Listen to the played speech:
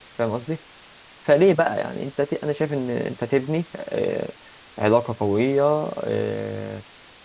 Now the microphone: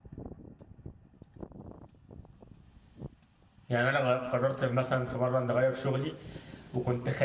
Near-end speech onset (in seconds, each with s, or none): 3.7 s